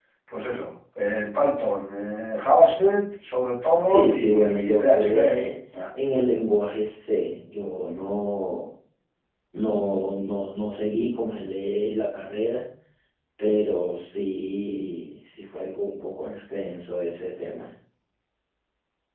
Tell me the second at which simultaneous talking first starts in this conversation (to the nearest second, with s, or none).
4 s